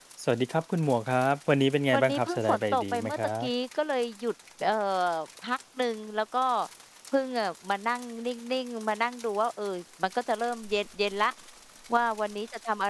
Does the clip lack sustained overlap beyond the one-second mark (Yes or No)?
No